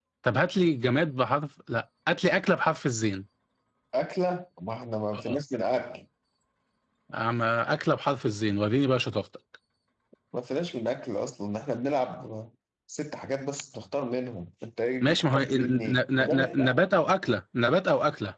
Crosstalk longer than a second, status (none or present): present